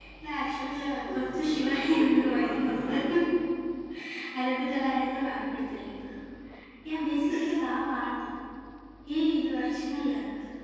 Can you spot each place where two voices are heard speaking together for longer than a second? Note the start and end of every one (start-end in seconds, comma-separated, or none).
1.0-3.0